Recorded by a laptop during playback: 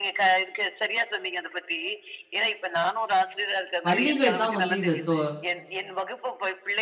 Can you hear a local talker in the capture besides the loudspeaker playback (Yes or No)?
Yes